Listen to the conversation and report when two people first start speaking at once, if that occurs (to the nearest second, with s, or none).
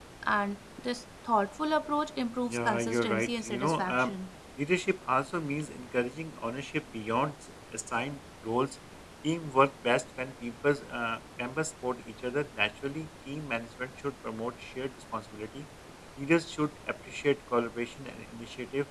2 s